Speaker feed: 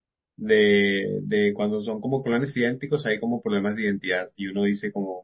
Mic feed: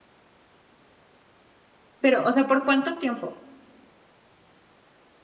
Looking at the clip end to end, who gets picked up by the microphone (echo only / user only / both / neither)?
user only